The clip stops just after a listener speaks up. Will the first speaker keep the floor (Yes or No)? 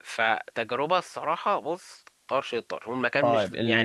No